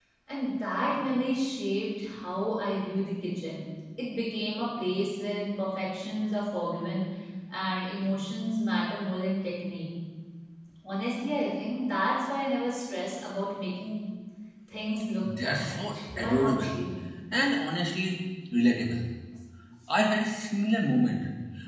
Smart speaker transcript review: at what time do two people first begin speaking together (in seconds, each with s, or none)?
15.2 s